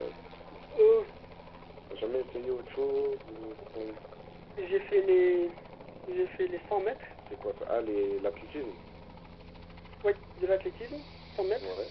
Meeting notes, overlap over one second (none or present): none